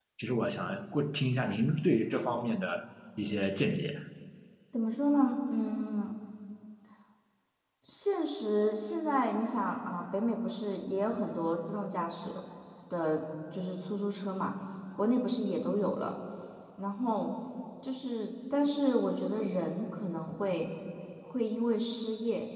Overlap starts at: none

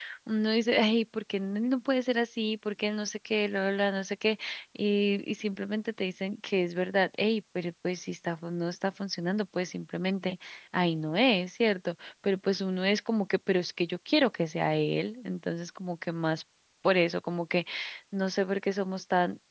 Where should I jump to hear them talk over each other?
none

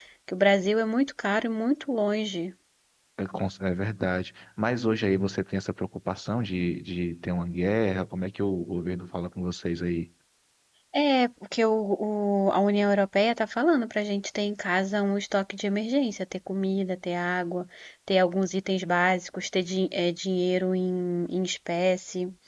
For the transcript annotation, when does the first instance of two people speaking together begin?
none

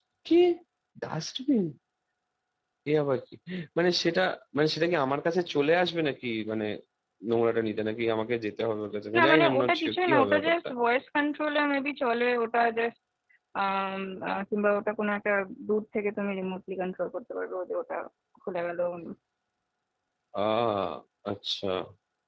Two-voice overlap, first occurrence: 9.1 s

